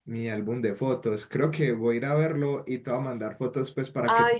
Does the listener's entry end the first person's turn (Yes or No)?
Yes